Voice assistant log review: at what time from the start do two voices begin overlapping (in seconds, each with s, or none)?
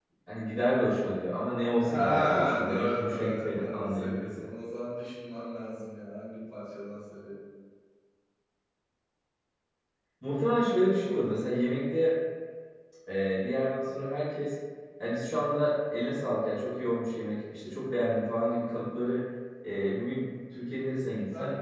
1.8 s